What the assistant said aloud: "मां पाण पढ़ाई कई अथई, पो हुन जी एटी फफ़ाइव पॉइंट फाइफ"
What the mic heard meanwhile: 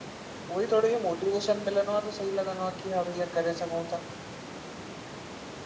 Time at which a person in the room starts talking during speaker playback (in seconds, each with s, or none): 0.5 s